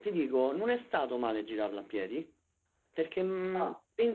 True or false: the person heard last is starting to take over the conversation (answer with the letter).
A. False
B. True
A